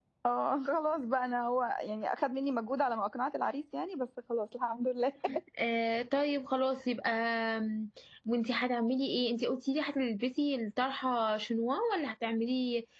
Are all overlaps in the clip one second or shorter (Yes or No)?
Yes